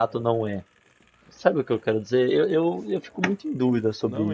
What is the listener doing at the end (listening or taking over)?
taking over